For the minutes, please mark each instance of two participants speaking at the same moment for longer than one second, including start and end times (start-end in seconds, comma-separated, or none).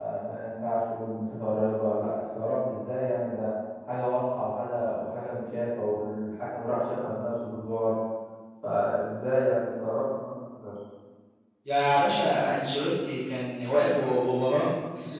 none